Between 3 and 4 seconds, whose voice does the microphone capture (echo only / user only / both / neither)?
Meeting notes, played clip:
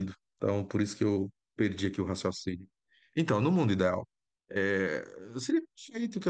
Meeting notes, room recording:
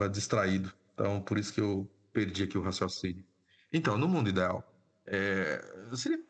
echo only